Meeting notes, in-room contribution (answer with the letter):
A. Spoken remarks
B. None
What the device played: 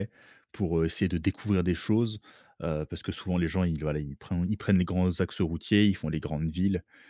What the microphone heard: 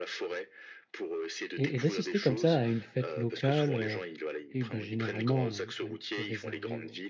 A